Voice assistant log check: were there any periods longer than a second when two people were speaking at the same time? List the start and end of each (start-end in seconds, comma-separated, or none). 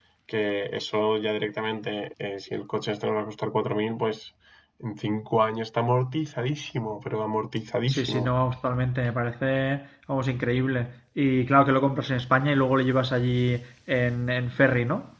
none